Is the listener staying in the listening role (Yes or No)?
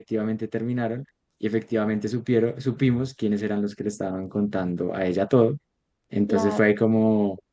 Yes